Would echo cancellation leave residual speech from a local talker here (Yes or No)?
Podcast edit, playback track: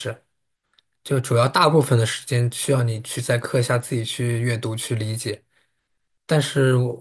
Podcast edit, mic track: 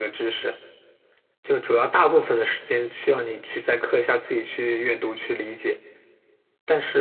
No